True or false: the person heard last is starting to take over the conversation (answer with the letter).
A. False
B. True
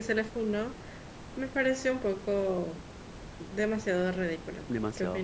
B